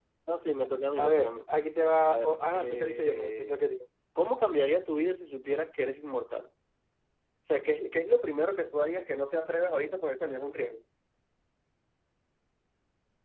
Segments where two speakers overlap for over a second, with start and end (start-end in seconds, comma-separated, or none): 2.0-3.5